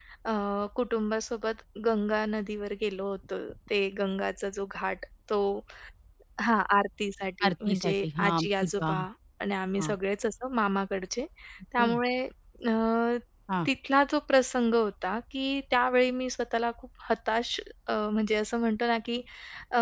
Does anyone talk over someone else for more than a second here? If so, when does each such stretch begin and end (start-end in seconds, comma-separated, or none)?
7.5-8.9